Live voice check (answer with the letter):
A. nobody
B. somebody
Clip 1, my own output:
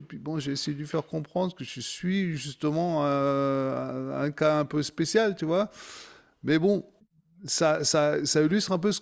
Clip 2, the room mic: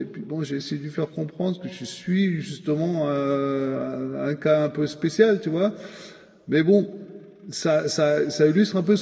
A